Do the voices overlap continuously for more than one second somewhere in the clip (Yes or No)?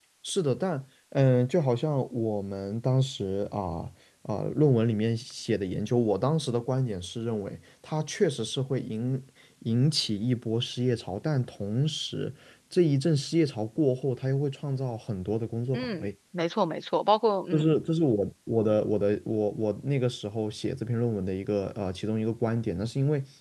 No